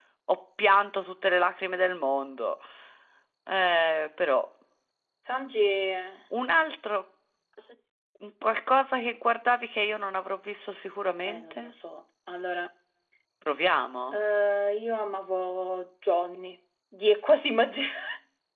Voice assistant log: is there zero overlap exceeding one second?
Yes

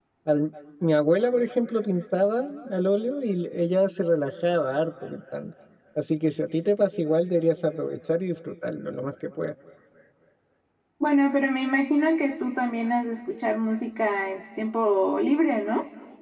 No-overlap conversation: Yes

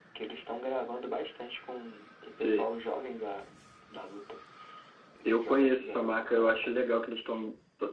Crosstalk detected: Yes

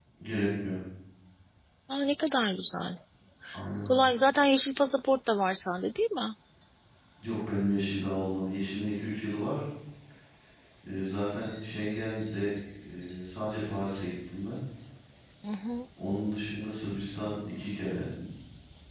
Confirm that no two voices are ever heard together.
Yes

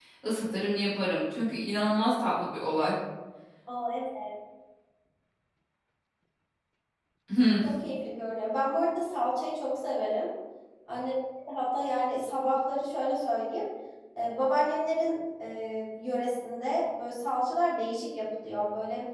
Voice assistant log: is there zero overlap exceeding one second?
Yes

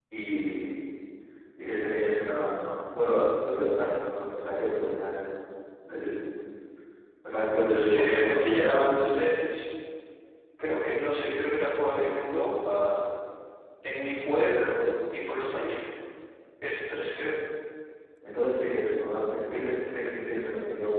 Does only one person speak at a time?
No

